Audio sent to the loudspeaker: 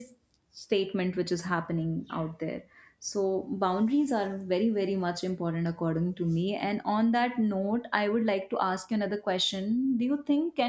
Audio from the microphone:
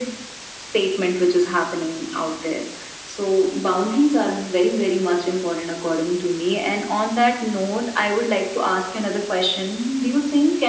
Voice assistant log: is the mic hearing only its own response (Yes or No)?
Yes